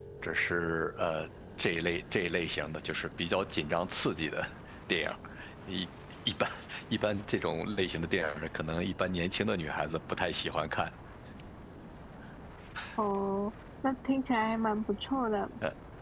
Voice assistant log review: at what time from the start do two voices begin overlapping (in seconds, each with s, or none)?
none